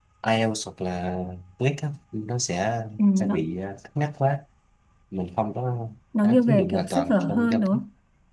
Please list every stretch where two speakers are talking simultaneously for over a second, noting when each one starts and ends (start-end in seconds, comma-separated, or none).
6.2-7.8